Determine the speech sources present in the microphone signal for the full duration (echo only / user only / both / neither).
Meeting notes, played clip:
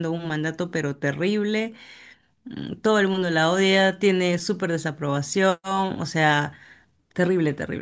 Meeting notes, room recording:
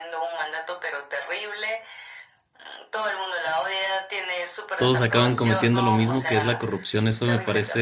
both